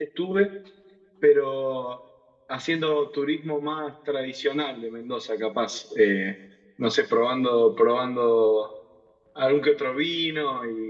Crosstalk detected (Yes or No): No